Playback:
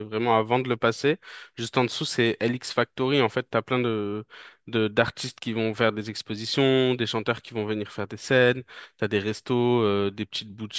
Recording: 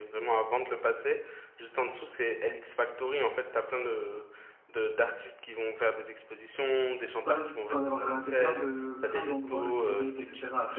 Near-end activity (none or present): present